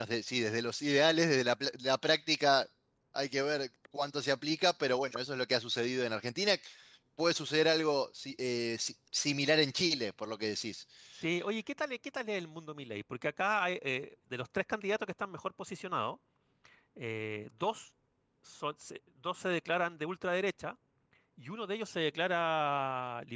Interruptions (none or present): none